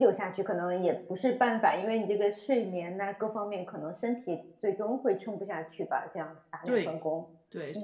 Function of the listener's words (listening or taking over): taking over